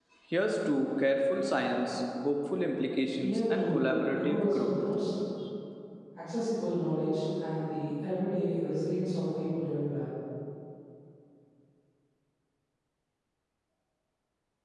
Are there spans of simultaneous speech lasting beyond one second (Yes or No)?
Yes